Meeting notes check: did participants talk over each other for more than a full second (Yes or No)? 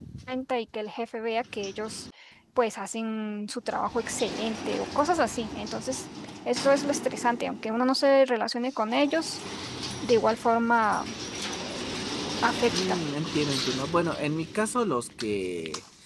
No